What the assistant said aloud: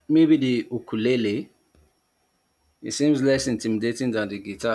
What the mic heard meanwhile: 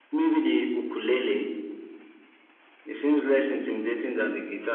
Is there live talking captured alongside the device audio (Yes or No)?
No